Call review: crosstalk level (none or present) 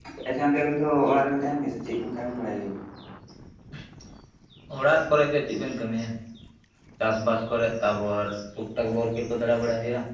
none